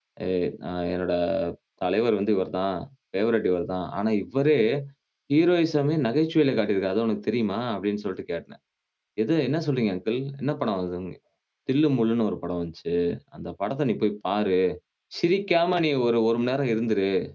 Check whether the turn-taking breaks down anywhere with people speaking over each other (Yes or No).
No